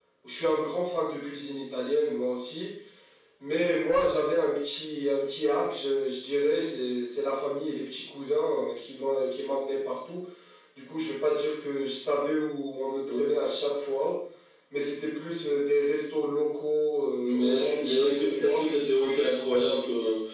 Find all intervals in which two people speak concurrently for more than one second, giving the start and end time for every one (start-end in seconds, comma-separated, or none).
17.2-18.6